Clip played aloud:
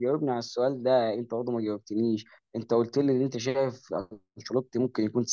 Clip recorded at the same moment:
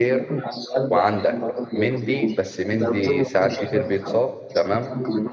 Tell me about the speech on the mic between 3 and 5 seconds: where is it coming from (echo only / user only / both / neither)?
both